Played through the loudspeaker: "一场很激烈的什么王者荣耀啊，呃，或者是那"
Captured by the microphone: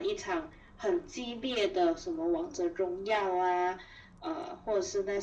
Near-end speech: none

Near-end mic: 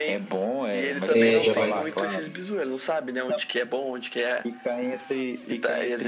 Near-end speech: present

